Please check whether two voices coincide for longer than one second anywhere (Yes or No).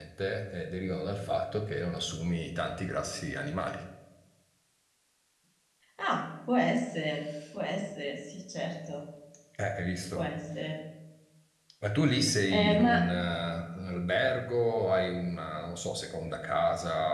No